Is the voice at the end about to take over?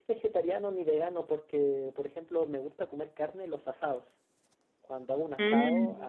No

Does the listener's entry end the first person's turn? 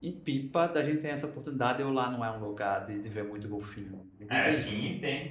Yes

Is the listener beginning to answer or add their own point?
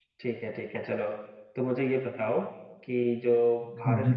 No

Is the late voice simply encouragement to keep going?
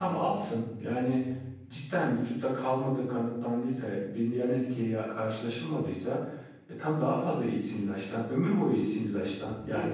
No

